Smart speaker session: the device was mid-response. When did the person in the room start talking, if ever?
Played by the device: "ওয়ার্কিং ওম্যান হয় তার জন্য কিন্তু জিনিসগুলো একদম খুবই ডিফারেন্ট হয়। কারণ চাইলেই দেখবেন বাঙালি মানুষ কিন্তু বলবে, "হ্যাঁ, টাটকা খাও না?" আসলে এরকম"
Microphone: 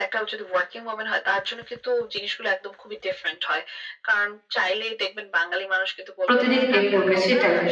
6 s

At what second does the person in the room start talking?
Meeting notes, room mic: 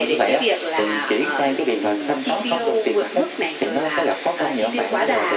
none

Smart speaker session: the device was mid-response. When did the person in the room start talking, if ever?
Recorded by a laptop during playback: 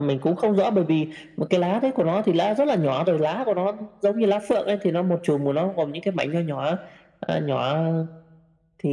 none

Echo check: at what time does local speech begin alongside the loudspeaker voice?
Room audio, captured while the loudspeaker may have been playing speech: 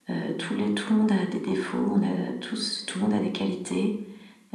none

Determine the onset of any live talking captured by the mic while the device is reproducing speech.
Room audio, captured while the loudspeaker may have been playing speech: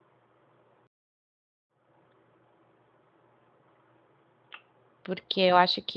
5 s

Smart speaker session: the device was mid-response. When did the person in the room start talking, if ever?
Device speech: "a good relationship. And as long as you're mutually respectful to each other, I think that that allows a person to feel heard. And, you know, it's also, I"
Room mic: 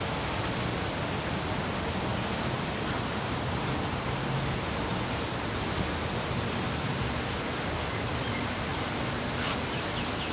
none

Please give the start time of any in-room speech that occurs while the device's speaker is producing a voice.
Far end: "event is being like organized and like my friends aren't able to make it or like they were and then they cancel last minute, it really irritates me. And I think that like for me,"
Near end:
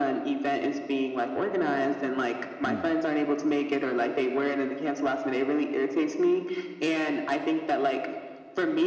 3 s

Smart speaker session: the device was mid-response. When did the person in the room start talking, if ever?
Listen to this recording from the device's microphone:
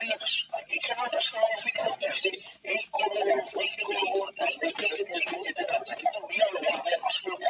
none

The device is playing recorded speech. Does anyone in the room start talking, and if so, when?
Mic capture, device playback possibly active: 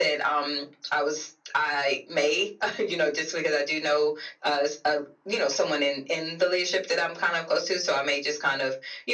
none

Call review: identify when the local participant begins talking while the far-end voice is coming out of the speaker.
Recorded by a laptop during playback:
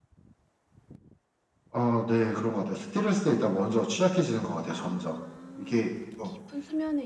5 s

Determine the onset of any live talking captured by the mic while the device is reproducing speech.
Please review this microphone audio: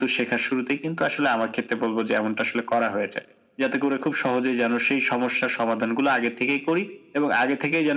none

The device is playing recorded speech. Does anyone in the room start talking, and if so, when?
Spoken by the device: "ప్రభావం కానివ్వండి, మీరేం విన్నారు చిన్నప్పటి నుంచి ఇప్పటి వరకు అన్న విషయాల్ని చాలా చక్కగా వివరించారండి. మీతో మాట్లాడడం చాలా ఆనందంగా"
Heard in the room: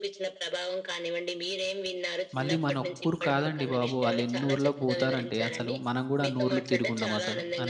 2 s

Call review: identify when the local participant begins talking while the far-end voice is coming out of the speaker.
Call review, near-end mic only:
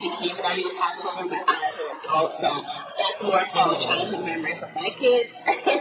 3 s

